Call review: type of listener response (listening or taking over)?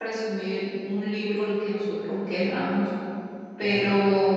listening